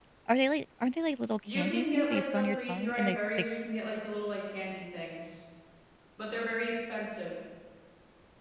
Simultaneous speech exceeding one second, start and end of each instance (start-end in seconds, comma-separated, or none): 1.5-3.5